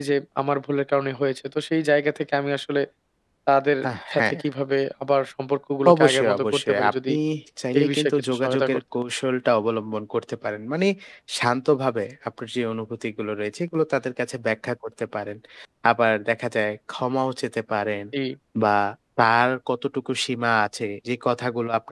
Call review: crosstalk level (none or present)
present